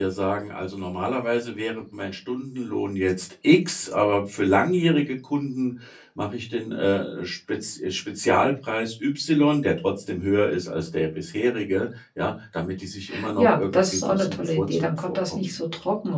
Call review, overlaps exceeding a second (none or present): present